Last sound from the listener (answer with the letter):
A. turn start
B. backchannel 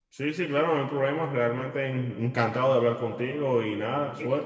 A